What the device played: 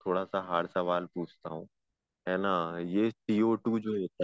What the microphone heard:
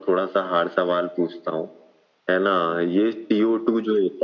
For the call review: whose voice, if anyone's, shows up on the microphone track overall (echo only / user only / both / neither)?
echo only